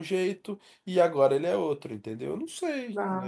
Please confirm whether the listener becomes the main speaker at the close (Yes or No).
Yes